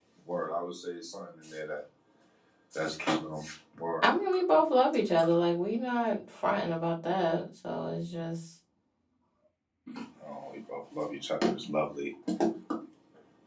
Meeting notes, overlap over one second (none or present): none